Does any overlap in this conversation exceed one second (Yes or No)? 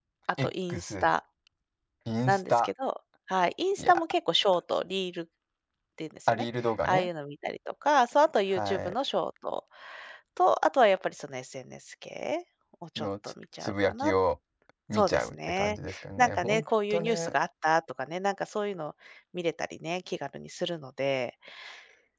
Yes